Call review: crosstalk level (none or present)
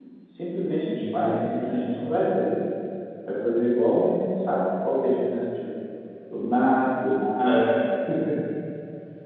present